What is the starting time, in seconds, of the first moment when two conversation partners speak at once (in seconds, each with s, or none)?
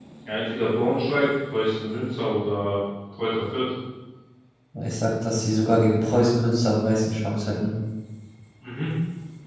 none